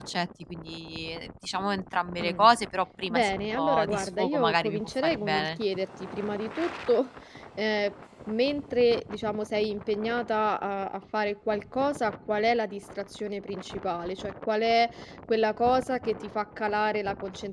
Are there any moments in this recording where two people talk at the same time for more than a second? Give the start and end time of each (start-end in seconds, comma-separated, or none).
3.1-5.6